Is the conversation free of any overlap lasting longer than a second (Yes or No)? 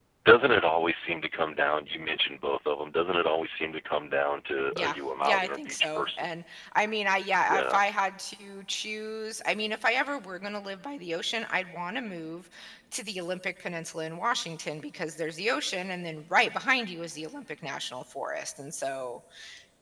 No